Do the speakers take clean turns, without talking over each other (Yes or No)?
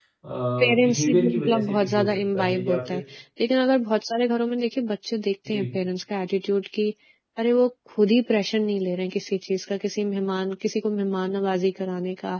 No